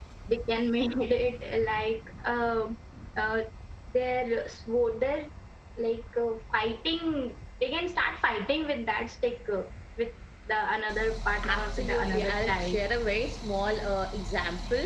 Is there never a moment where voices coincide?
No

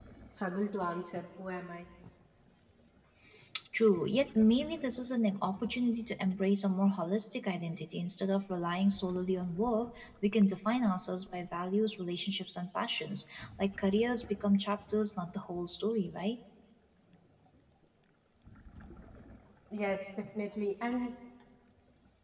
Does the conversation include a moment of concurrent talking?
No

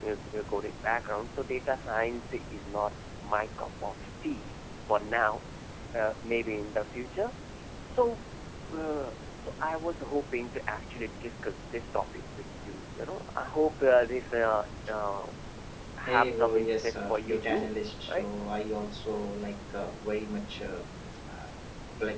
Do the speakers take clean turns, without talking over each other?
No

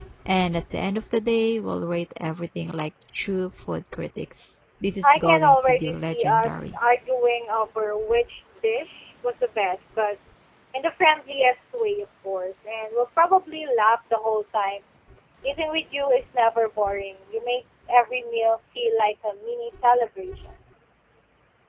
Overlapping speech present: Yes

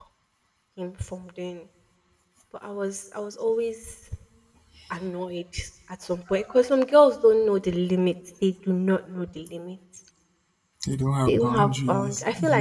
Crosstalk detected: Yes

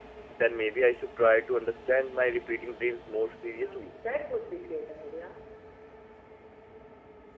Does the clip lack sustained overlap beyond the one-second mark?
Yes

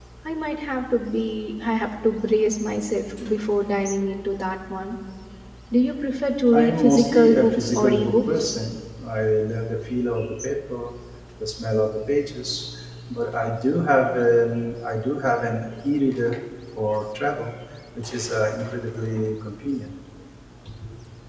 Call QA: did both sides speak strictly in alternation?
No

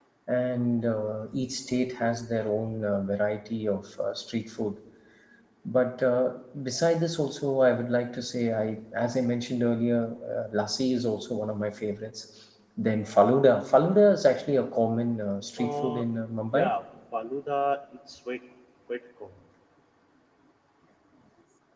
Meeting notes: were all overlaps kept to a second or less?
Yes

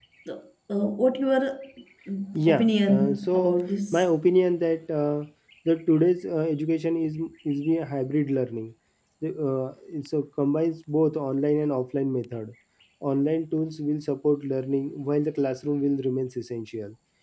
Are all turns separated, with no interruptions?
No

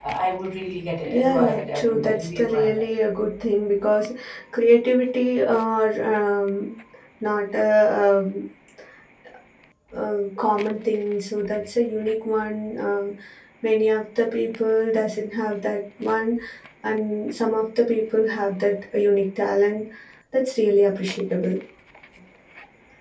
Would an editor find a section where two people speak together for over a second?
Yes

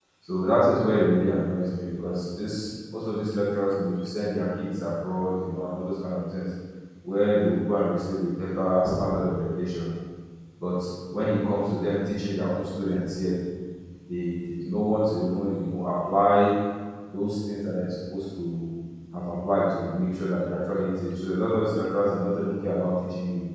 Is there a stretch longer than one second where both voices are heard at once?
No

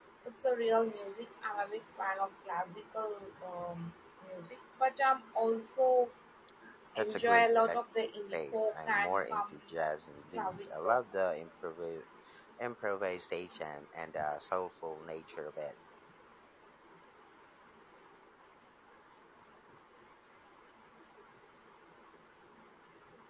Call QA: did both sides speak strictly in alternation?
No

